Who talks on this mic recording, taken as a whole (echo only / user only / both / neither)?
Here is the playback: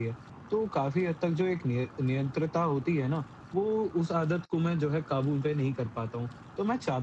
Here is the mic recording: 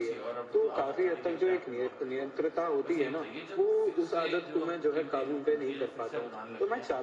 both